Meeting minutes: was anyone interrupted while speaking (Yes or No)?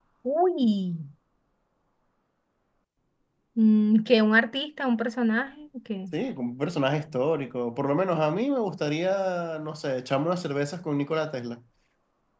No